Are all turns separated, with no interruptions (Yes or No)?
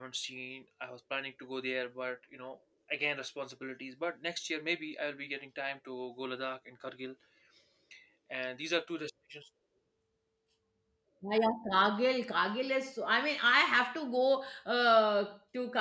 Yes